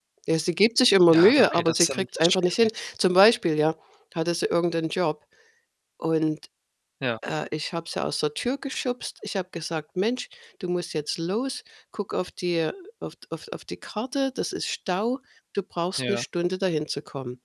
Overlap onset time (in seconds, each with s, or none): 1.1 s